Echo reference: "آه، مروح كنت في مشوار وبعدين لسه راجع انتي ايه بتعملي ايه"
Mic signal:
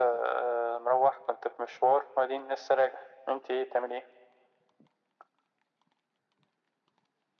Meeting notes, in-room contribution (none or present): none